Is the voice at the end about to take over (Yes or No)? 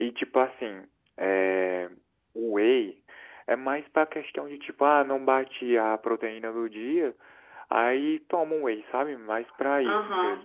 Yes